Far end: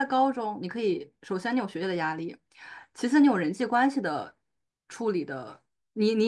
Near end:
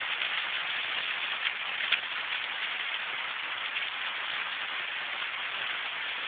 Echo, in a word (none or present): none